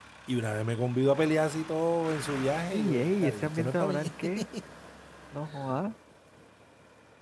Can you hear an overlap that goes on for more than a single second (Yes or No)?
Yes